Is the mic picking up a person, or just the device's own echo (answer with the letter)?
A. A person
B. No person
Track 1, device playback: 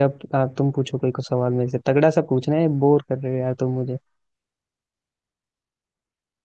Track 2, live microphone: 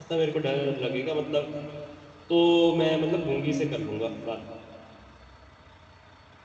A